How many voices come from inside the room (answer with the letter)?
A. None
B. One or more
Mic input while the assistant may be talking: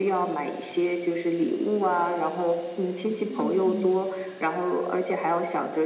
B